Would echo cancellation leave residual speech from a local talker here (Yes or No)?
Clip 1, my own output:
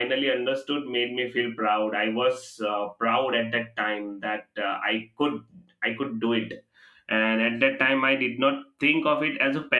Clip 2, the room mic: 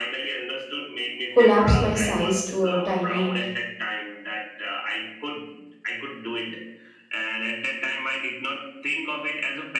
Yes